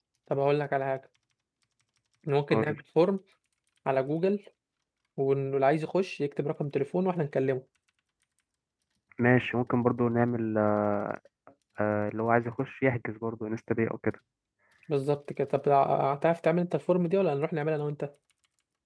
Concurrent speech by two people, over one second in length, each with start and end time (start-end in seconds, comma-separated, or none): none